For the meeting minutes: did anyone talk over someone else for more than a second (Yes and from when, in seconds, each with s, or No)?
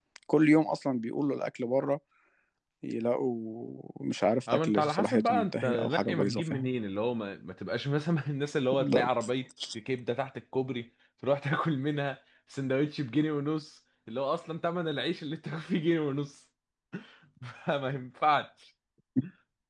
Yes, from 4.5 s